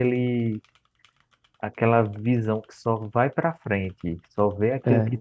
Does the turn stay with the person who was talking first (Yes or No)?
Yes